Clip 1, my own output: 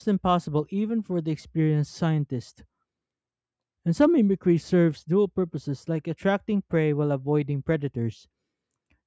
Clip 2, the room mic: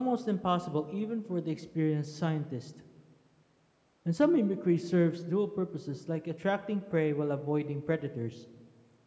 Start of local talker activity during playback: none

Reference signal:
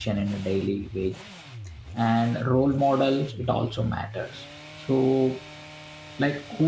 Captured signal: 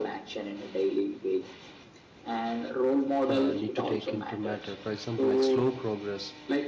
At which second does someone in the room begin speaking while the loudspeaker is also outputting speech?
3.3 s

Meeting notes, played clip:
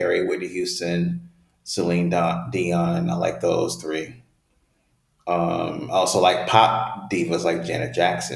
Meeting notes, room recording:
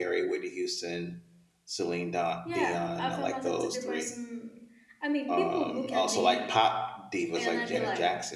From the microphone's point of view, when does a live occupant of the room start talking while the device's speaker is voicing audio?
2.4 s

